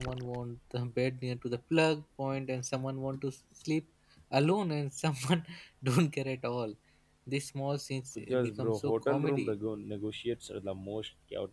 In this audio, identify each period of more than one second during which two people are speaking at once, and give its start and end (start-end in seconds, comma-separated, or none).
8.3-9.5